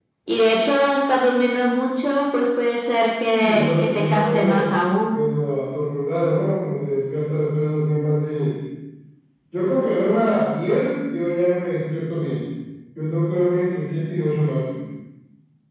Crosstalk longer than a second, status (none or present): present